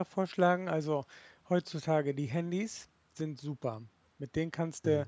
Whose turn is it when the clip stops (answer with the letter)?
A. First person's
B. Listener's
A